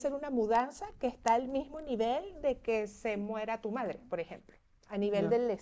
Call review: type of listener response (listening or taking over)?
taking over